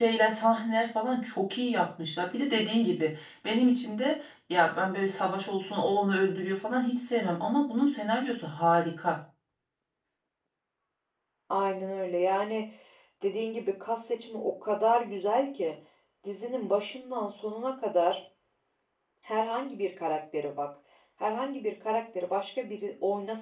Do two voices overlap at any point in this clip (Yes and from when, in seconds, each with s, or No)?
No